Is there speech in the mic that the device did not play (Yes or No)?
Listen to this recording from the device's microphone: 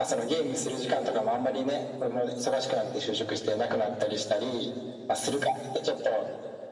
No